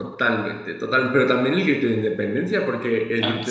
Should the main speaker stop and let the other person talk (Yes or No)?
No